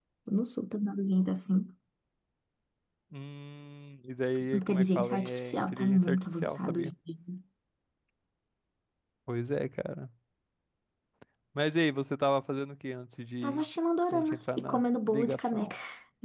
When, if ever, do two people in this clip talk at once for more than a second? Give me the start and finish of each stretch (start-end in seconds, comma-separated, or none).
4.5-6.9, 14.1-15.7